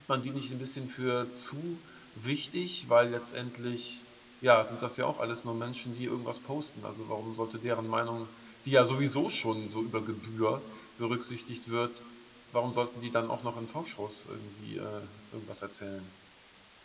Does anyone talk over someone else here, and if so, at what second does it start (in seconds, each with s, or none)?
none